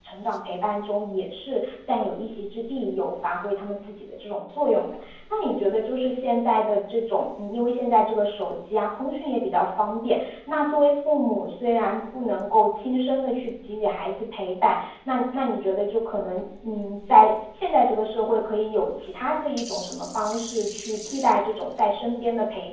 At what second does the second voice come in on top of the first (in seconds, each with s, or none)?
none